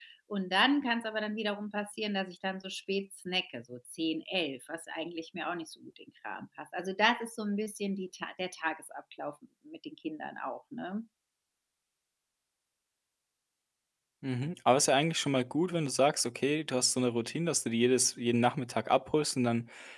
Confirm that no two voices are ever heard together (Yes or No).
Yes